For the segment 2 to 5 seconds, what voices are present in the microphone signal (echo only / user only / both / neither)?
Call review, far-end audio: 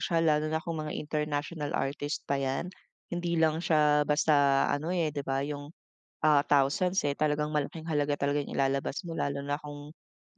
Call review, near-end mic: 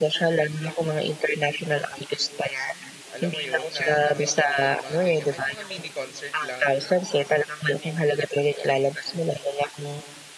both